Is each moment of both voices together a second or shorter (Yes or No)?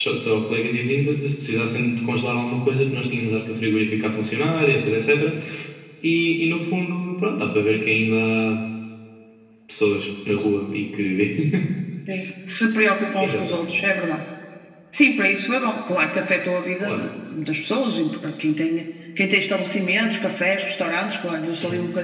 Yes